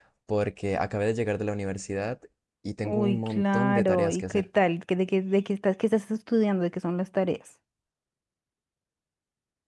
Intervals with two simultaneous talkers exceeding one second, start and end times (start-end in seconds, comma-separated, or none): 2.8-4.5